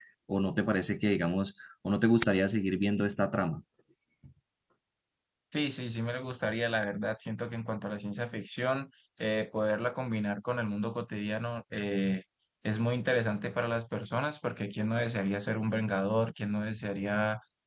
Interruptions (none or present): none